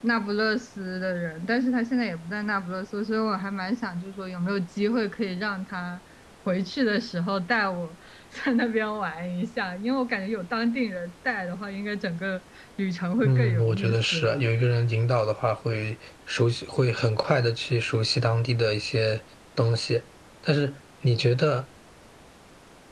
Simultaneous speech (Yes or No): Yes